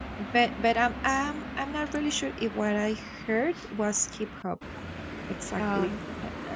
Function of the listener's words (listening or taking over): listening